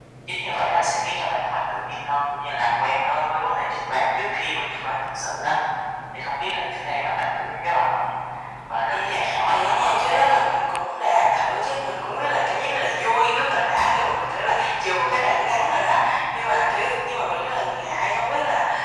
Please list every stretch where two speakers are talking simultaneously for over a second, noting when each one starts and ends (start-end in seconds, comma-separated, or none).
8.9-10.6